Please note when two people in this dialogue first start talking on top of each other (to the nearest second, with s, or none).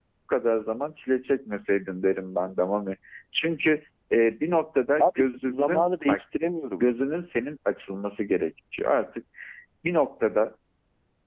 5 s